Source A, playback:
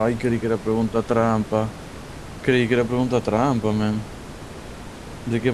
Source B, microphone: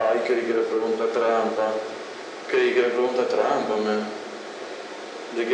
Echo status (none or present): present